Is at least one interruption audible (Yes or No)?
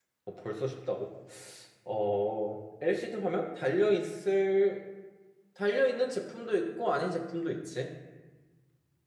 No